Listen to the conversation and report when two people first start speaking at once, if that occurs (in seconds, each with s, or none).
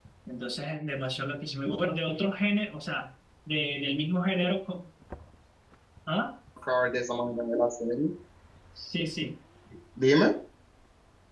none